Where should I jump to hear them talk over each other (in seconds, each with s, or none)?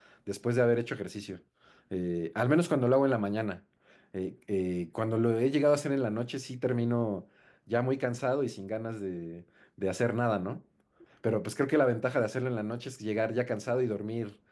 none